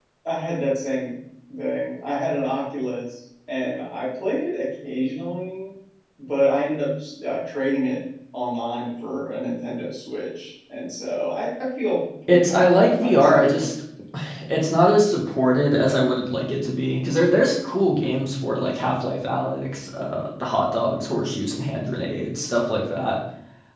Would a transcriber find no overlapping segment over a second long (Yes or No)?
No